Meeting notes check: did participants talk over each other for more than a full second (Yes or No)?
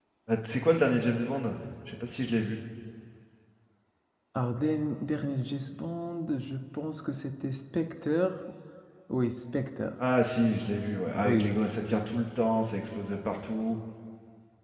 No